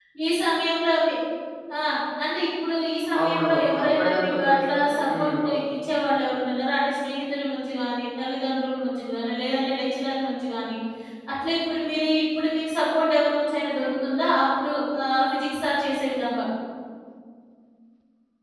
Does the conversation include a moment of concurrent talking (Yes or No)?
Yes